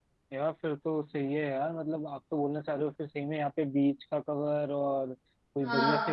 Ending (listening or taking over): listening